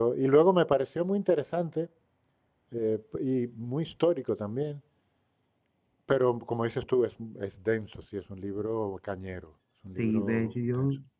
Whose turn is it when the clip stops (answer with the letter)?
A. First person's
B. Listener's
B